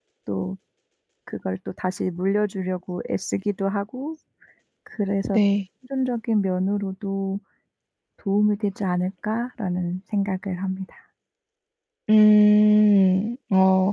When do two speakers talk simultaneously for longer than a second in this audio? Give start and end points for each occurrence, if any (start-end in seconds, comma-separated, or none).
none